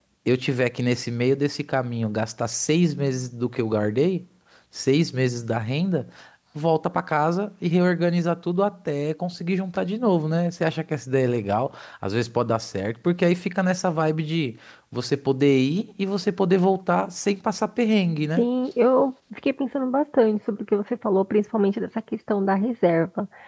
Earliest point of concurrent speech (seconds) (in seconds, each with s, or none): none